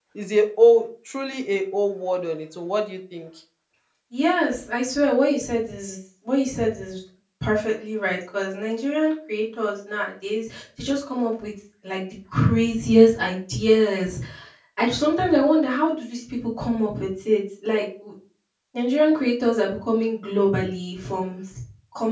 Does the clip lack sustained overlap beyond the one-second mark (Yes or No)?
Yes